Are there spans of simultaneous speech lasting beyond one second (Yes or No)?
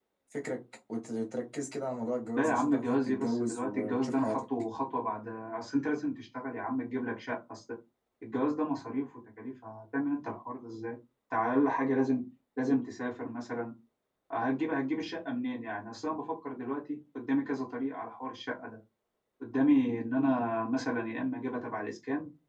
Yes